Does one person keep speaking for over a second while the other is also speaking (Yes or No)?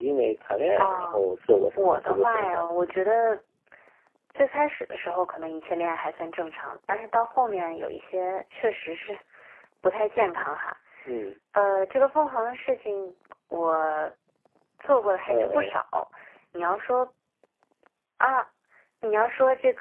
Yes